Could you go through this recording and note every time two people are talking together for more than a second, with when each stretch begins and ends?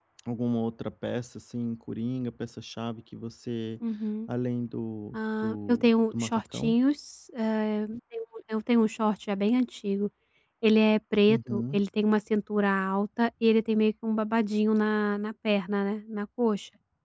5.4-6.7

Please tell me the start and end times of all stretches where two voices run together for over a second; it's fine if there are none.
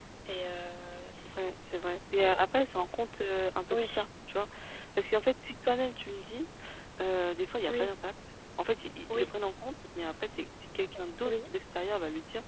none

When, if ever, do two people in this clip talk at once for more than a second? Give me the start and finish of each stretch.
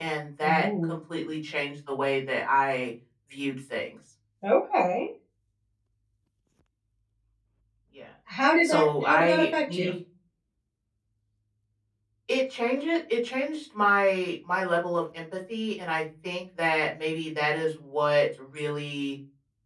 8.6-9.9

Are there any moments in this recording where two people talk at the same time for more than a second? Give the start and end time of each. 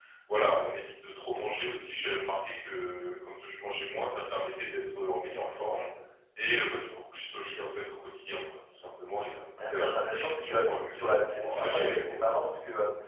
9.6-12.4

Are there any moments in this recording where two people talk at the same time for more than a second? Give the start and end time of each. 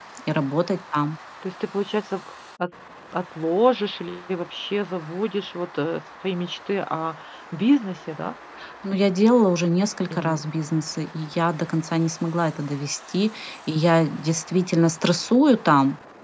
none

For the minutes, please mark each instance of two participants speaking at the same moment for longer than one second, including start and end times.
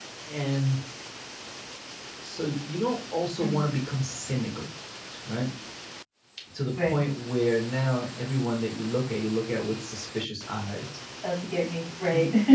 none

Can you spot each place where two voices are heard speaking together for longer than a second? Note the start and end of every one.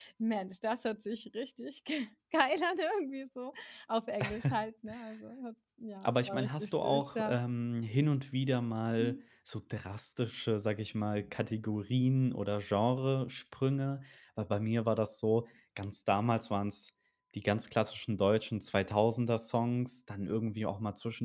6.0-7.4

